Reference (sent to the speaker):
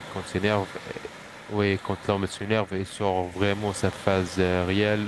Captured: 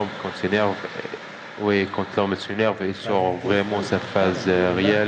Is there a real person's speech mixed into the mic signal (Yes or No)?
Yes